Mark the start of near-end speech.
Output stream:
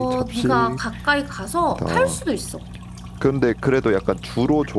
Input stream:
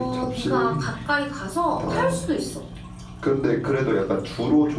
0.7 s

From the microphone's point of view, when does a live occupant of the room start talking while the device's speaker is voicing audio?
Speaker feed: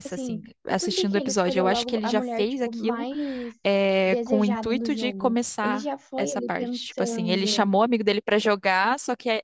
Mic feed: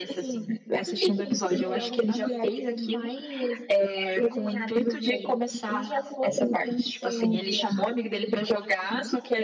none

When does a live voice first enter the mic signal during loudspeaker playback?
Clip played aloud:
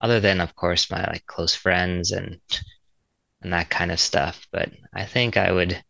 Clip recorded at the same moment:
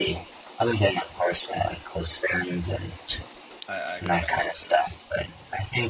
3.7 s

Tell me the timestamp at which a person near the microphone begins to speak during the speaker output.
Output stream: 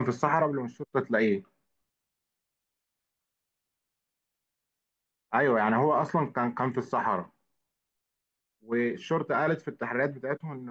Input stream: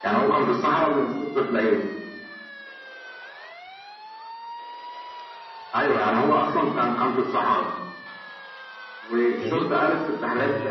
9.4 s

